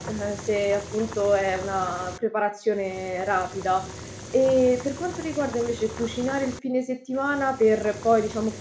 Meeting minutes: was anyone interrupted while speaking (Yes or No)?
No